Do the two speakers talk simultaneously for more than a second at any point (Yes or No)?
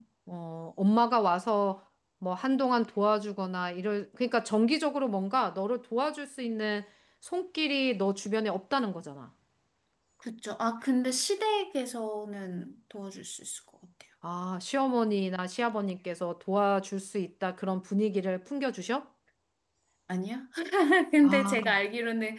No